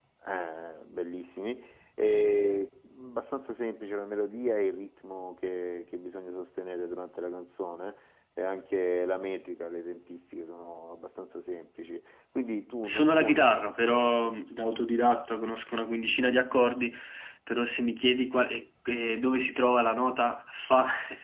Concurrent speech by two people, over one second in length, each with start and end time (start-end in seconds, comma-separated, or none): 12.8-14.3